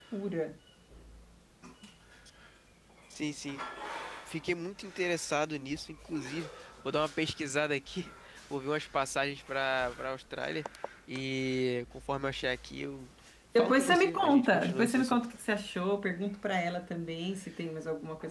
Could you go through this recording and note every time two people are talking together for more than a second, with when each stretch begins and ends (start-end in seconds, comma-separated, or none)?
13.6-15.2